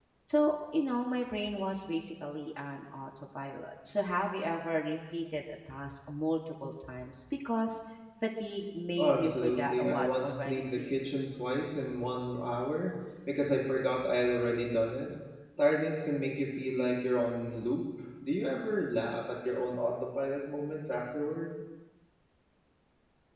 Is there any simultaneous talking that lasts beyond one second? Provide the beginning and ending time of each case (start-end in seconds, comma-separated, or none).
9.0-10.9